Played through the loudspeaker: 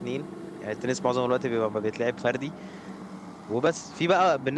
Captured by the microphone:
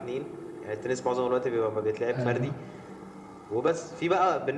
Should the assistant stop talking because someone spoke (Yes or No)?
Yes